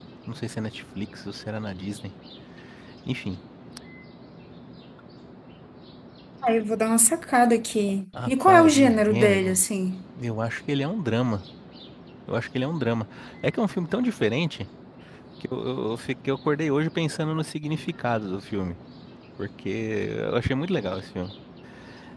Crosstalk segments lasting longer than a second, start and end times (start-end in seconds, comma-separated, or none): 8.3-9.6